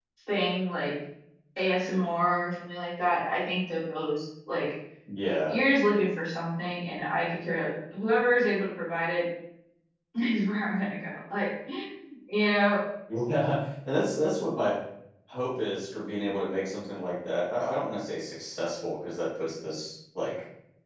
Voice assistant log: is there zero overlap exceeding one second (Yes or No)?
Yes